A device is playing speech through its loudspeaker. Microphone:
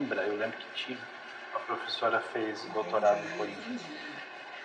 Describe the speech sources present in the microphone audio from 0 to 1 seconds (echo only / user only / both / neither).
echo only